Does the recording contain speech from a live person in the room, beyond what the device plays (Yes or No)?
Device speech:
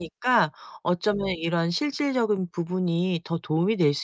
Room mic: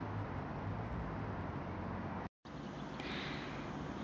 No